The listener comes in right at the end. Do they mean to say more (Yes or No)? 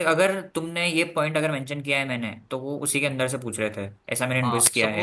Yes